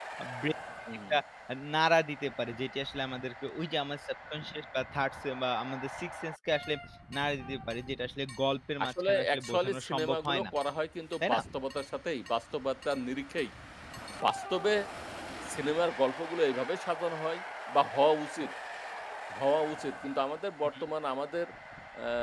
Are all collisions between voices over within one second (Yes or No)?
No